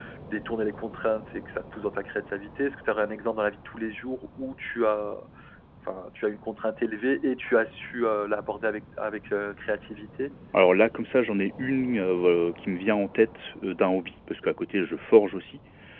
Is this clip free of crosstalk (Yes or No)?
Yes